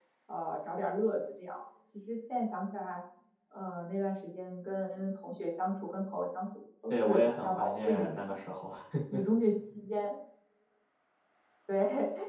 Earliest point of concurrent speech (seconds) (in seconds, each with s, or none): 6.9 s